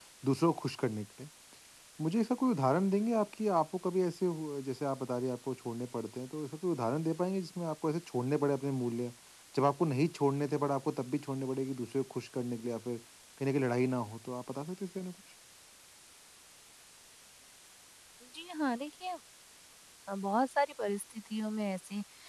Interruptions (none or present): none